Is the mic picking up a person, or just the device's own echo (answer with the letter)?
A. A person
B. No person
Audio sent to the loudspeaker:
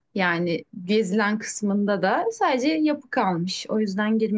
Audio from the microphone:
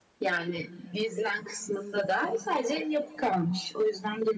B